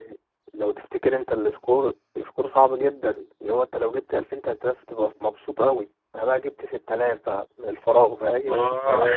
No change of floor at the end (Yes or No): Yes